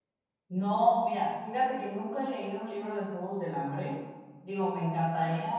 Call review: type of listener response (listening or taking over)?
listening